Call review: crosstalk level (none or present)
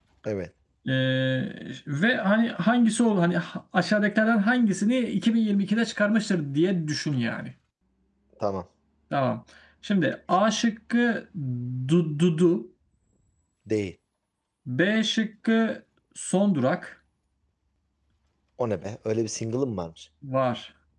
none